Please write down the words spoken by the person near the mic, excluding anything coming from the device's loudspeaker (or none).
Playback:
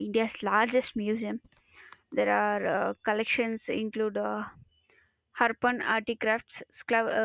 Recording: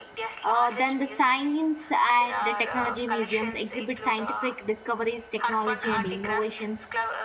uh, then the science and the technology museums exhibit scientific discoveries technology and innovations